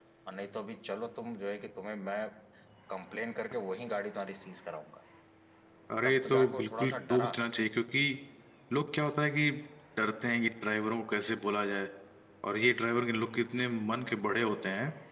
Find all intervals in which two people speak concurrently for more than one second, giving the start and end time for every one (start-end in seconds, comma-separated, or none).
6.0-7.3